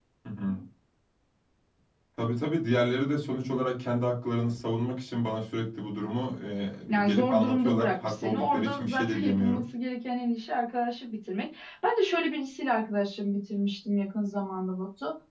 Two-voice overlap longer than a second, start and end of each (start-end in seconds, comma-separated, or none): 6.9-9.6